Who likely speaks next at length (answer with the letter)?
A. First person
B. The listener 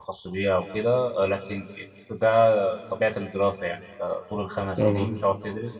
A